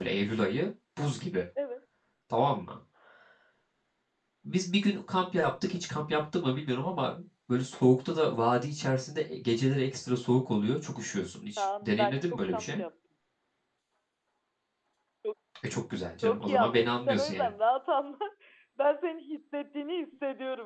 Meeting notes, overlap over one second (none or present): present